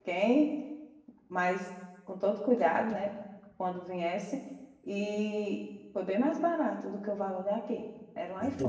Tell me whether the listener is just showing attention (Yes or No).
No